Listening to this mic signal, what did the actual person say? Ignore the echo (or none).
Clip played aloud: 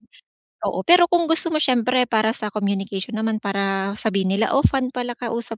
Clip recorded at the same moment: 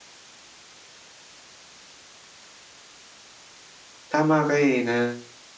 tama ka, eh, na